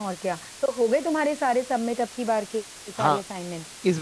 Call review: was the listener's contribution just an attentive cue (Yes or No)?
No